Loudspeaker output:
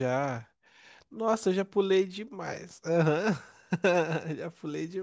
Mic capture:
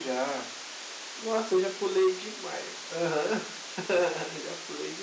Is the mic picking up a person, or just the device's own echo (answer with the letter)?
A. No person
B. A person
A